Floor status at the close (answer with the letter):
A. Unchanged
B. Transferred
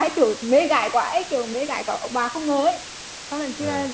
A